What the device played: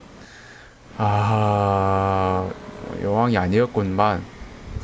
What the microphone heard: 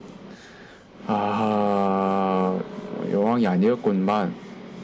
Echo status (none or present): present